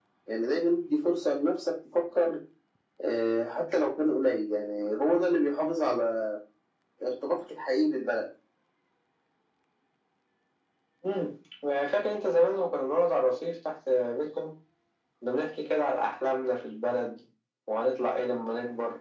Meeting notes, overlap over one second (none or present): none